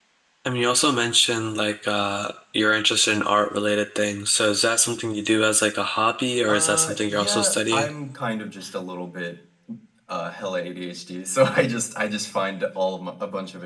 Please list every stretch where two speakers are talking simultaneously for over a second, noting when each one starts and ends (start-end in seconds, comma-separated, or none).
6.5-7.9